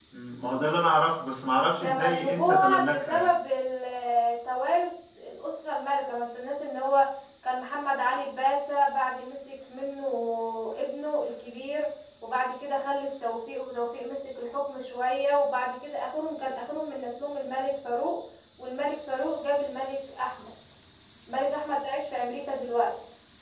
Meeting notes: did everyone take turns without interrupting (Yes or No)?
No